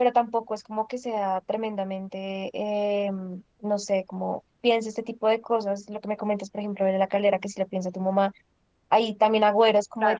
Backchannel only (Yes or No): Yes